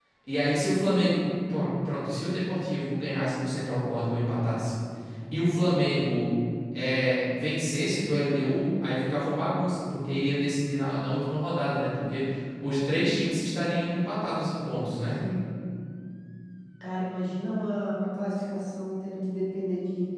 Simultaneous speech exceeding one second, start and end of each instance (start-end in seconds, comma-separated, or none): none